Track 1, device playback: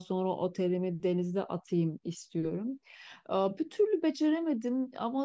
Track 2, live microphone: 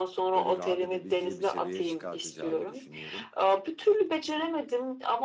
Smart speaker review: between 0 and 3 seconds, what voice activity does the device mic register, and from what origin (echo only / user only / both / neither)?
both